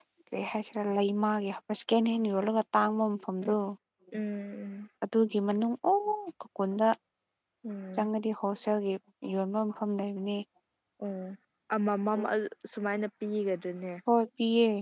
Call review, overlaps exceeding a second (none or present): none